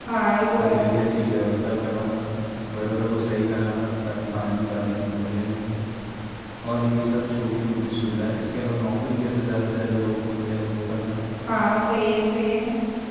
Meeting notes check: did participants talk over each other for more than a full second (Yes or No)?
No